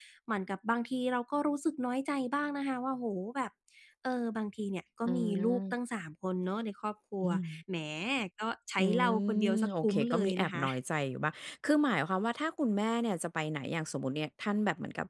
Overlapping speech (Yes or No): Yes